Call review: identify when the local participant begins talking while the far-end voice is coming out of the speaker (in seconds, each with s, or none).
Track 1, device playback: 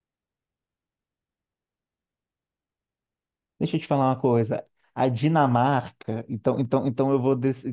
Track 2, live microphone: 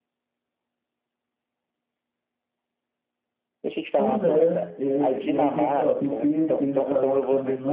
3.9 s